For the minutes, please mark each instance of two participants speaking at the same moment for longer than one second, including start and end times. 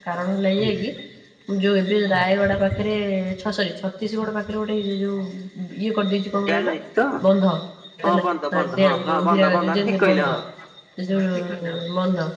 8.0-10.4

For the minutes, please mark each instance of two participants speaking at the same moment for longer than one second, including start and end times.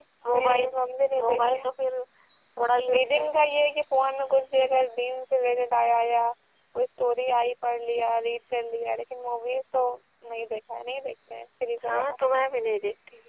none

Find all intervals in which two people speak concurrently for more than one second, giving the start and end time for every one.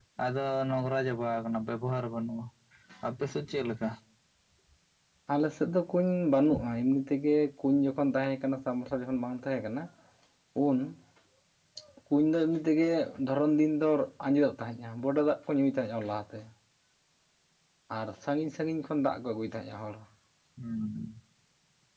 none

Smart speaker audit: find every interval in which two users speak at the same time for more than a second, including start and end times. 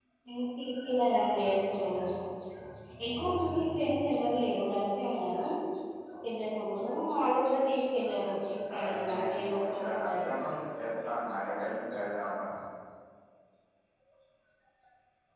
8.7-10.3

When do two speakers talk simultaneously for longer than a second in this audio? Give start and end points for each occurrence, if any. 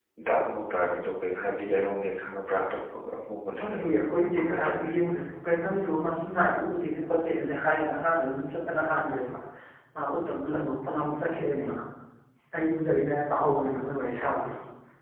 none

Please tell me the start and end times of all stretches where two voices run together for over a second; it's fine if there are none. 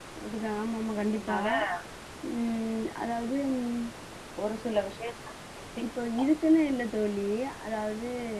none

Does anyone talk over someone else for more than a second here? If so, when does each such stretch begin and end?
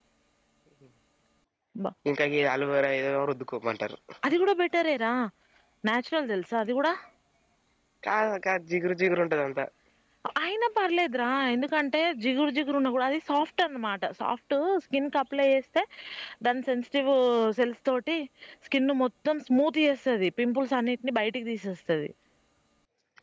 none

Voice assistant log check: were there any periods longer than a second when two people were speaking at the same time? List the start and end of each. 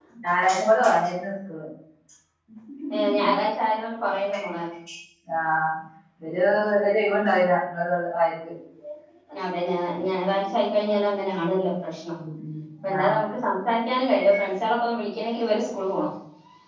none

